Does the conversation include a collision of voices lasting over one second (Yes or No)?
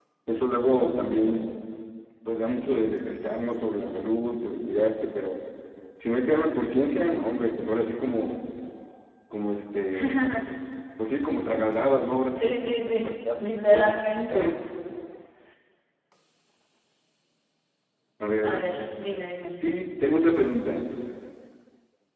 Yes